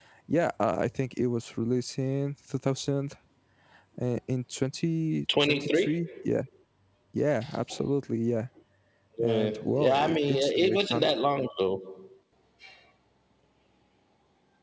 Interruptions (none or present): present